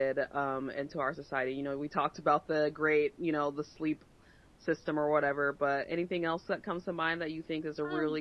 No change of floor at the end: No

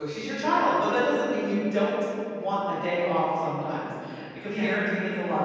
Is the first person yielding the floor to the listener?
No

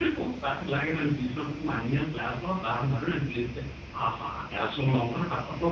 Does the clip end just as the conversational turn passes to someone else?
No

